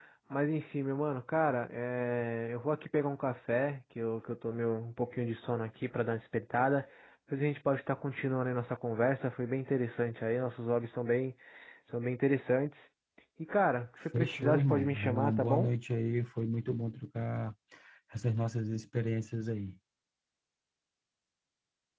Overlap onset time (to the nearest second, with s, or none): 14 s